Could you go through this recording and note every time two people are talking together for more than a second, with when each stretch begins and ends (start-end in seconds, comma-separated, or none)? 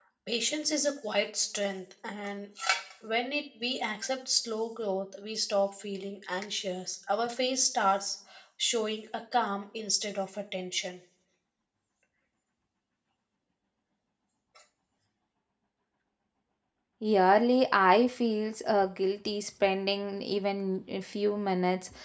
none